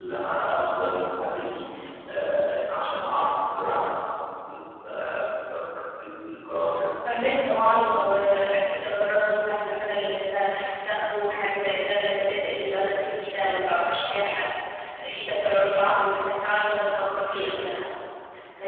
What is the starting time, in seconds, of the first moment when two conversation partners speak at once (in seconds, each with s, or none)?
none